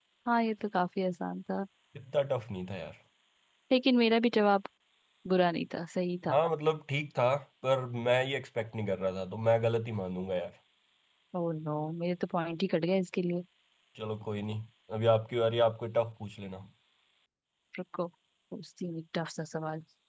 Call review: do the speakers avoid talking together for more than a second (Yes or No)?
Yes